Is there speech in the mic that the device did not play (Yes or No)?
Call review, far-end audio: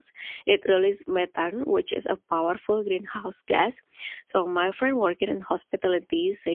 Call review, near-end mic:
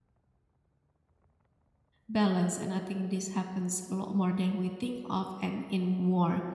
Yes